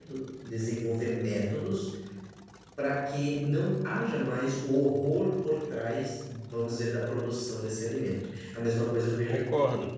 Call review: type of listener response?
listening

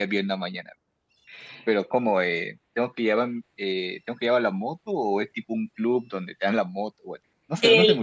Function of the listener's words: taking over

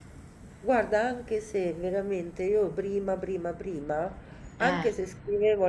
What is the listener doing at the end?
listening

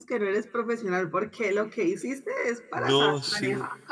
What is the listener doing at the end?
taking over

